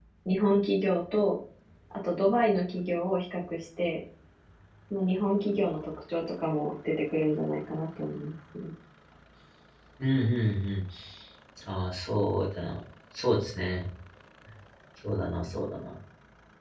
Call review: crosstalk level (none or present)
none